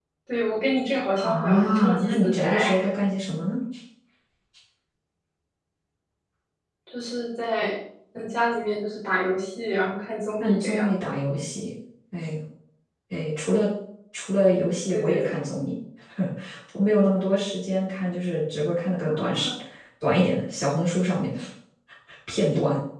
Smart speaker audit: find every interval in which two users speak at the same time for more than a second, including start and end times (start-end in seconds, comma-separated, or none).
1.2-2.7